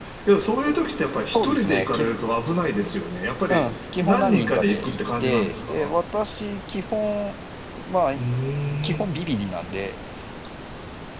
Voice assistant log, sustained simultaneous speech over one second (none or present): present